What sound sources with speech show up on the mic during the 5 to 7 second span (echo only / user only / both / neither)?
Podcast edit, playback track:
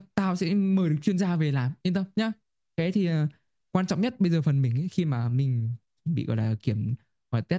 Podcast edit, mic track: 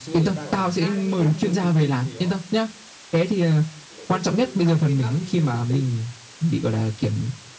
both